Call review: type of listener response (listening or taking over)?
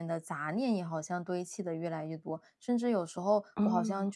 listening